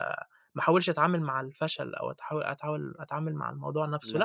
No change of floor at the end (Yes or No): Yes